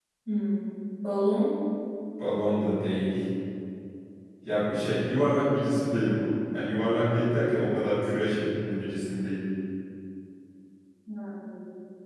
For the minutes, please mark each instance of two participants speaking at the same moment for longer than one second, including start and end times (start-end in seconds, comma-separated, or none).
none